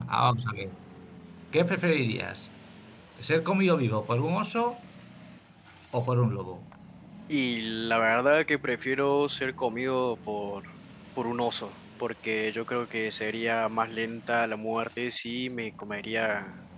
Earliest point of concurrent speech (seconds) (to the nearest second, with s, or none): none